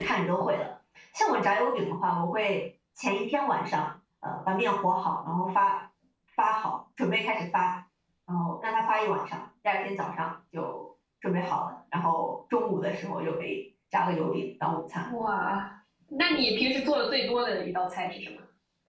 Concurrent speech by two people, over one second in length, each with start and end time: none

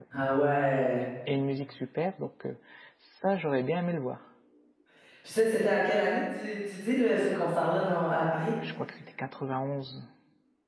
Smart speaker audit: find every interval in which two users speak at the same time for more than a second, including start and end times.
none

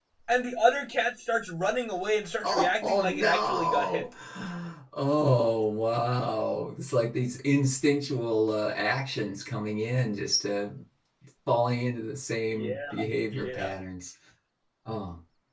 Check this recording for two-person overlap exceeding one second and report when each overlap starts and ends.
2.4-4.1

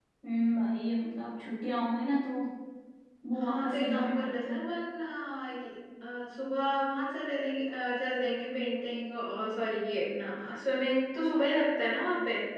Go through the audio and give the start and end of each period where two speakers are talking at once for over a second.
3.4-4.6

